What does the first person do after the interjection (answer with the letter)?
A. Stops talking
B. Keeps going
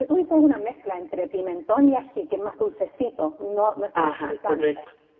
A